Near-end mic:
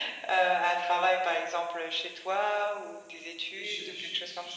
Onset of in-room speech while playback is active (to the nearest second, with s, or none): 4 s